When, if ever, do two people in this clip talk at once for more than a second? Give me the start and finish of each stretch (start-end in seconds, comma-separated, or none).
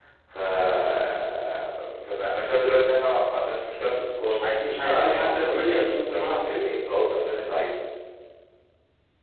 4.8-6.8